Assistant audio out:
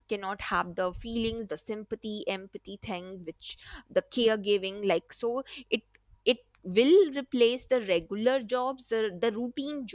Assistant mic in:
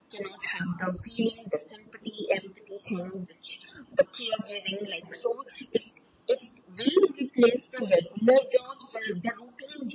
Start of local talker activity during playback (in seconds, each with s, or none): none